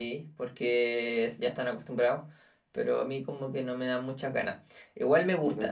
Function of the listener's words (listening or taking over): listening